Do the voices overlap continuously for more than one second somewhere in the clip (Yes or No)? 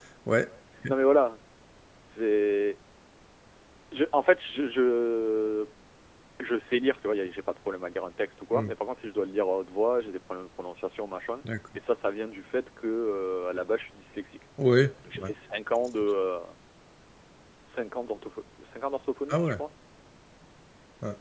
No